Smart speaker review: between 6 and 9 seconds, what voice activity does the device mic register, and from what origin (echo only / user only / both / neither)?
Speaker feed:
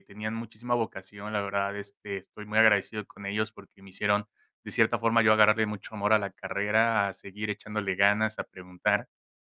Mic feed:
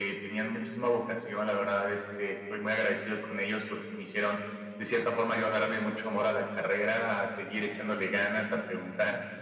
echo only